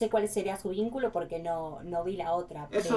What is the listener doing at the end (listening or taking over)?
taking over